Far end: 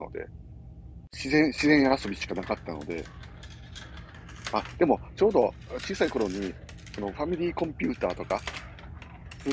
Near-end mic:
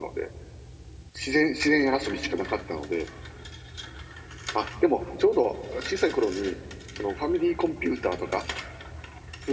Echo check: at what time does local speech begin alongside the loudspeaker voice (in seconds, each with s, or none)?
none